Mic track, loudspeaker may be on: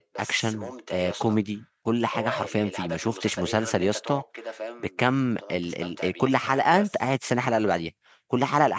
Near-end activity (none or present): present